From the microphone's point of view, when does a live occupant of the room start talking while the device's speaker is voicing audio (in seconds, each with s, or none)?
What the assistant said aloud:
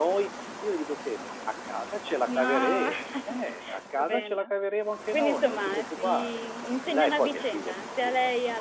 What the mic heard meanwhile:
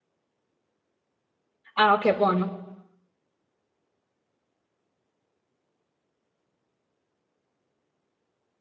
1.8 s